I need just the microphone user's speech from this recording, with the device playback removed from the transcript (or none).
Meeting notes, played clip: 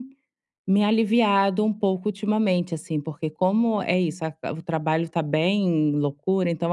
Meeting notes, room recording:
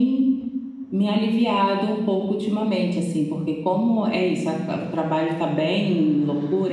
none